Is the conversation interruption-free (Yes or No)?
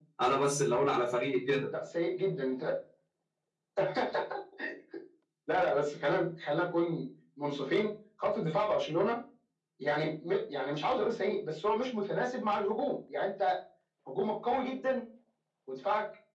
Yes